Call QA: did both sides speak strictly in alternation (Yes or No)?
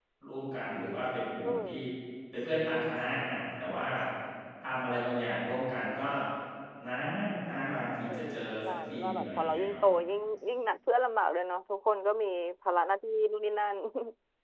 No